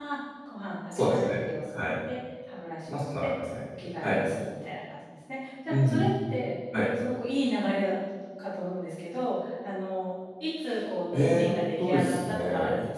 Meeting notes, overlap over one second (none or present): present